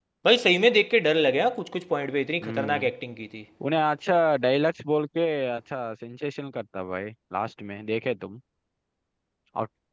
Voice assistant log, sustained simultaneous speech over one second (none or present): none